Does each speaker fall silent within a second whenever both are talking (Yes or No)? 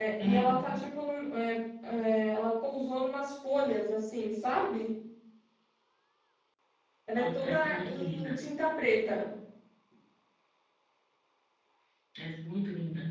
No